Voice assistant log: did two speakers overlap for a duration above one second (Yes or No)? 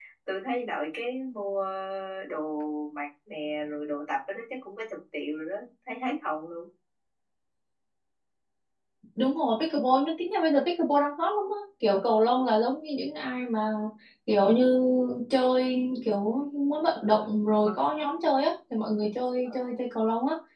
No